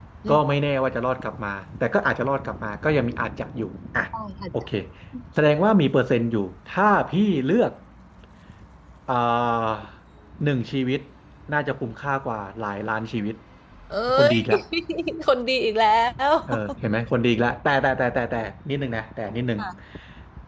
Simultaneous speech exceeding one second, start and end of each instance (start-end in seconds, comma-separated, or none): none